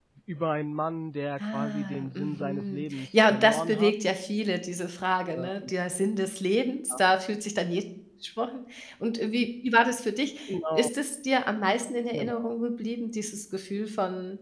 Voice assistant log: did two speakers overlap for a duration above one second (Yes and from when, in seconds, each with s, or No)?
Yes, from 1.4 s